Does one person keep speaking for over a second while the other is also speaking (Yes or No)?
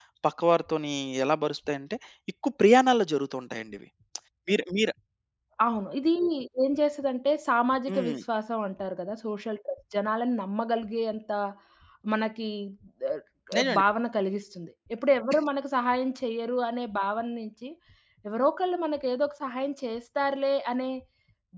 No